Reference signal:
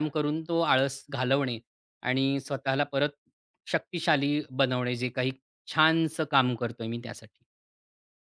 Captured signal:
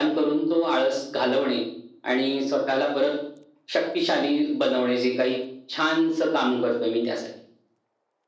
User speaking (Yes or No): No